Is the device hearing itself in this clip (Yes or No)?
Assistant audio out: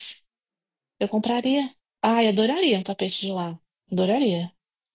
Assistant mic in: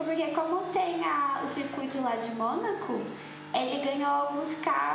No